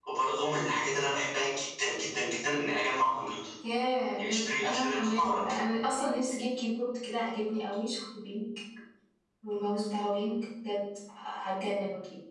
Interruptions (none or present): present